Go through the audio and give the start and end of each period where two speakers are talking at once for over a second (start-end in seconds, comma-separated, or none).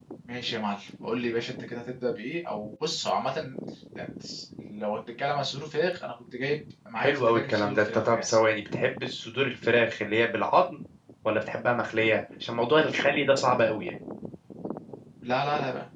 7.0-8.4